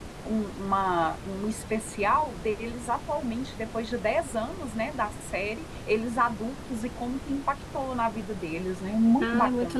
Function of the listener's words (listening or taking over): taking over